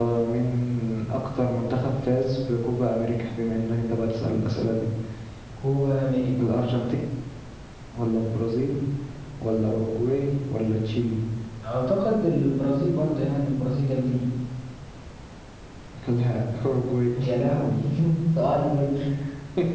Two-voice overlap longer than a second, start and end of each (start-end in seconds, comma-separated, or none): none